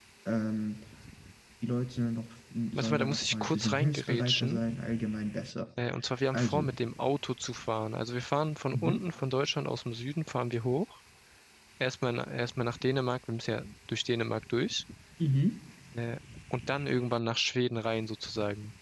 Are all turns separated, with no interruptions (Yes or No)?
No